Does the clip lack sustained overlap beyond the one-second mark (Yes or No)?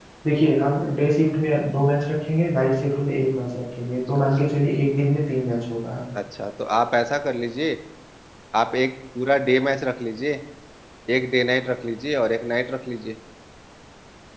Yes